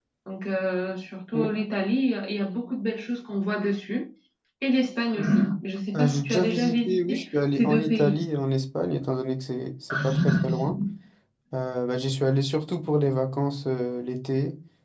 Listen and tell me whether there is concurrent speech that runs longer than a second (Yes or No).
Yes